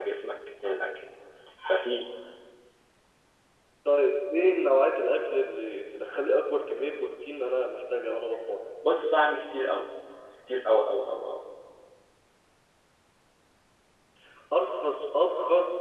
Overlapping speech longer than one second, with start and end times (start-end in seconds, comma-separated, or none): none